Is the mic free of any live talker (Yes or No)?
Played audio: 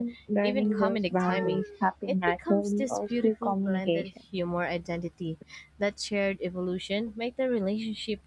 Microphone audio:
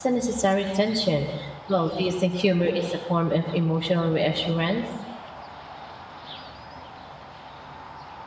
No